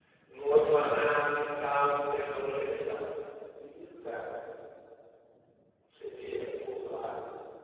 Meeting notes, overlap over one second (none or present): none